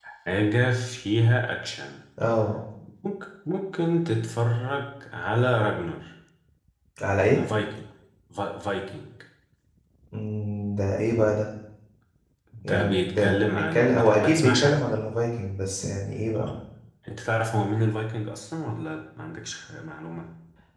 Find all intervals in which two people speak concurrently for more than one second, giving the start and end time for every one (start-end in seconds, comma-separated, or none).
12.6-14.8